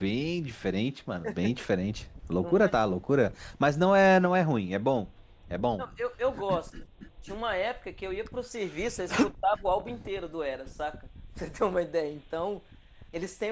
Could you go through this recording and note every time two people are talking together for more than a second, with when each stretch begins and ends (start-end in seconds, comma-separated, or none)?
none